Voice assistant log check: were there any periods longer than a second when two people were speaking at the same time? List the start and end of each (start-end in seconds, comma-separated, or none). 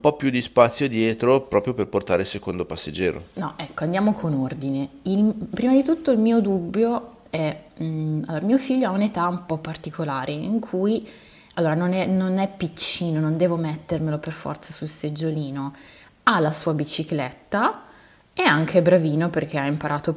none